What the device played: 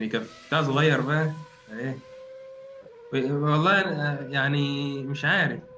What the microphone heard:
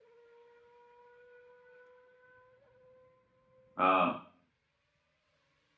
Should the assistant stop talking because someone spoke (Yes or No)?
Yes